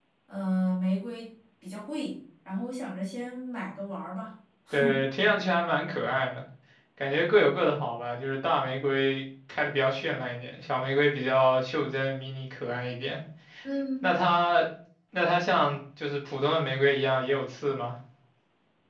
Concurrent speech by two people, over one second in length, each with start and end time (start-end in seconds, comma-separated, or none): none